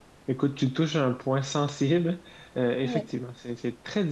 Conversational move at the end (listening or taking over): listening